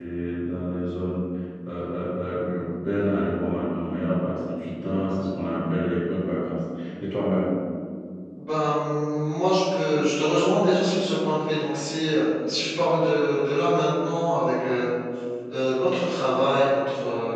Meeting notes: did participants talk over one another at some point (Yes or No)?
No